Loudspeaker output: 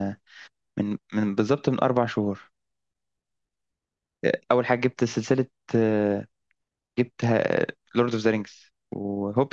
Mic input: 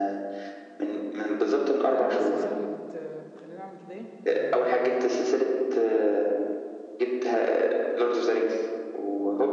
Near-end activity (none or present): present